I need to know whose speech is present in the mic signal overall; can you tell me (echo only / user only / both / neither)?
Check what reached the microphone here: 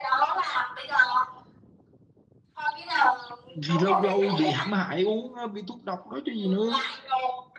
both